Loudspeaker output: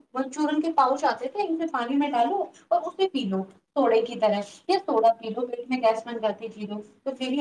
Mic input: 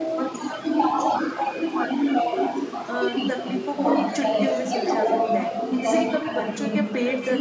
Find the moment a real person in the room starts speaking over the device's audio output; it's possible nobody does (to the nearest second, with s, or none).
3 s